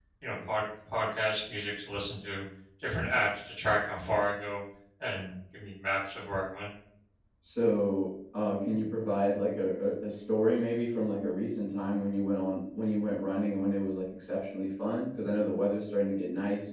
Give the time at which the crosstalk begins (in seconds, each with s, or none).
none